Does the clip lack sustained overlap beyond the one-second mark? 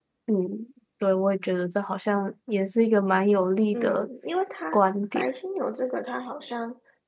Yes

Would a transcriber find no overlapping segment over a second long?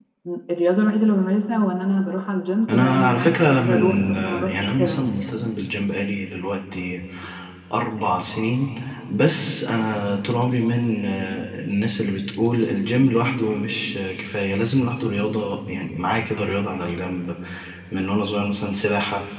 No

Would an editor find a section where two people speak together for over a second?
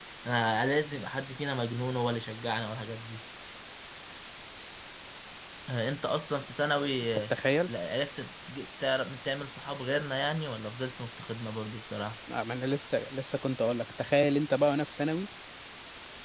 No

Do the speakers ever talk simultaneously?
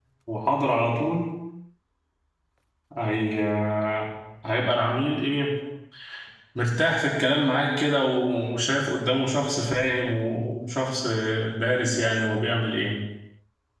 No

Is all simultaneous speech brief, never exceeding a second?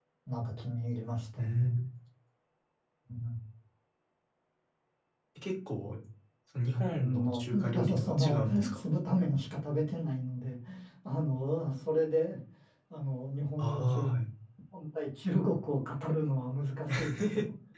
No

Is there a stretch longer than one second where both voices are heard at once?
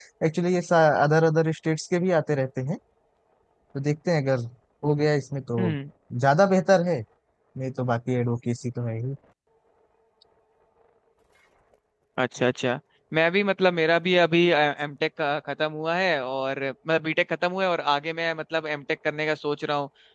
No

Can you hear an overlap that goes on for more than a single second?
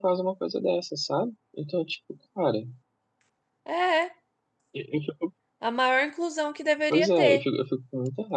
No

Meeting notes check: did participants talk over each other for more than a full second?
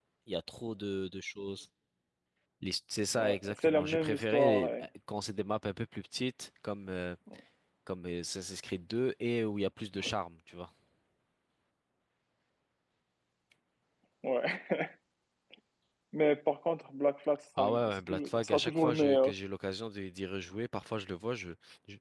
Yes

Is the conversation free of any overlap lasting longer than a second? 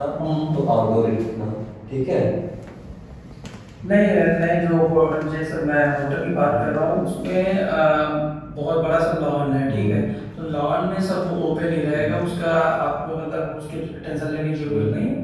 Yes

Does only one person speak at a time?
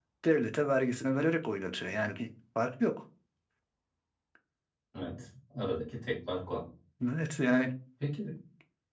Yes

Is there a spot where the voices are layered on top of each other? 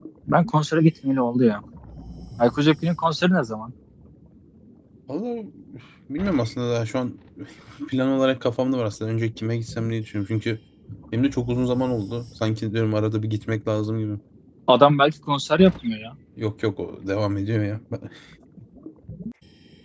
No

